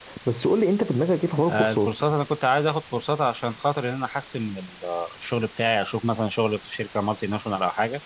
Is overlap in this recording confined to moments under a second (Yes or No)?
Yes